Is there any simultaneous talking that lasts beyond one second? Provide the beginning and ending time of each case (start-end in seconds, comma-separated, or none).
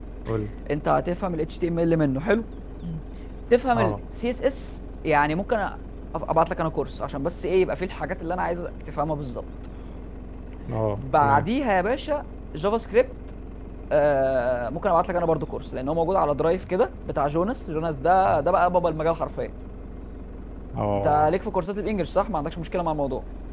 none